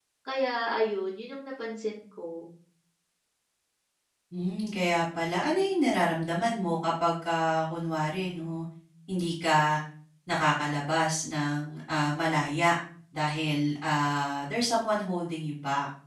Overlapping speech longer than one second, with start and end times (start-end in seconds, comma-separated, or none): none